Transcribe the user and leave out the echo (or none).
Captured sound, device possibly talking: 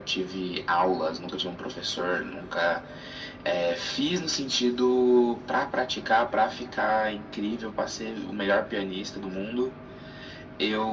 none